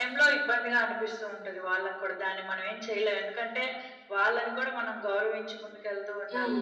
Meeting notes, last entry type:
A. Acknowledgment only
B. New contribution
B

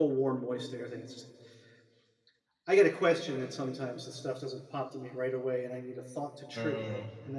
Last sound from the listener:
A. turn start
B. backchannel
A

